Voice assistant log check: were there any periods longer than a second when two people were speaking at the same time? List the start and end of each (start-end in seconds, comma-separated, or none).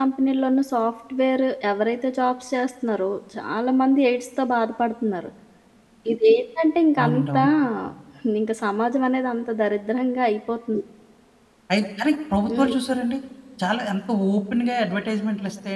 none